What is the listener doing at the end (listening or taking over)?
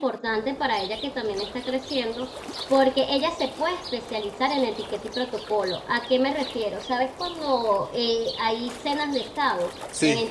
listening